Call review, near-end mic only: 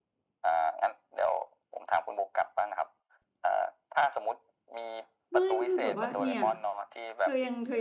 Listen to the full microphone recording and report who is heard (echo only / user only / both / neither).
both